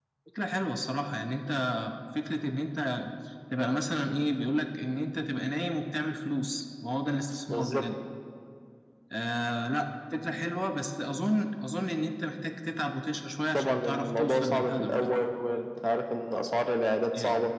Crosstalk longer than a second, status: present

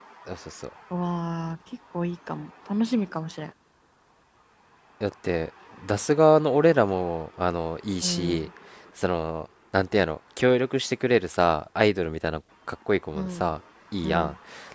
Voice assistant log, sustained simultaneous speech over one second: none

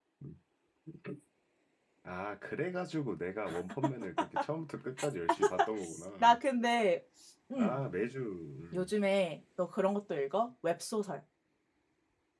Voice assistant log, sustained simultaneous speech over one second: none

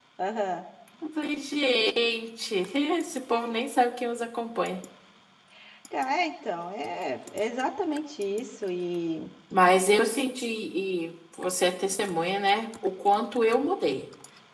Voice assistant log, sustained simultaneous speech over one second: none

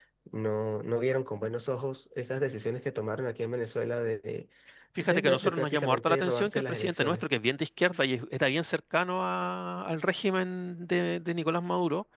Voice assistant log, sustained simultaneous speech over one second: present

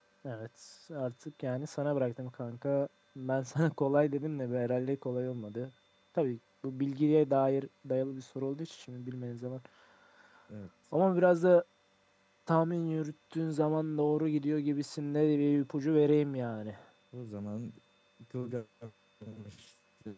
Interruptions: none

